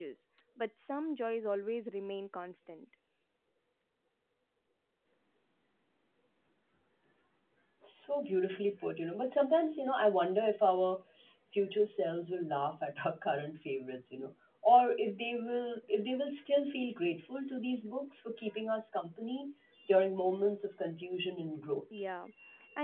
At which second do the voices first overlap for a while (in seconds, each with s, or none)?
none